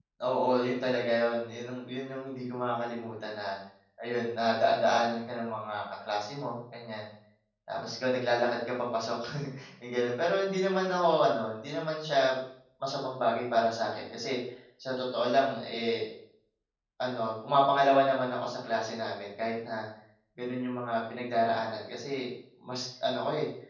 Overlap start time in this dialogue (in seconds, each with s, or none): none